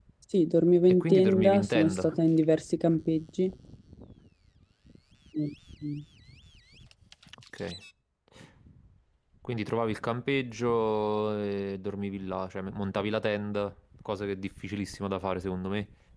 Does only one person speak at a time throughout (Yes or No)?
No